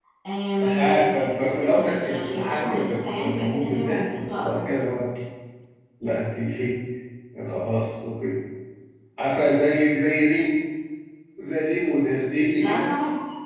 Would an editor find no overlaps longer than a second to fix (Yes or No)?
No